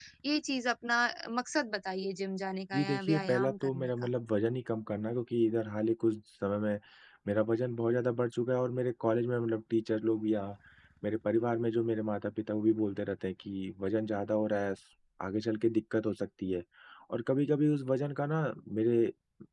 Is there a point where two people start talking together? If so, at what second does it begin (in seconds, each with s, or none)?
2.7 s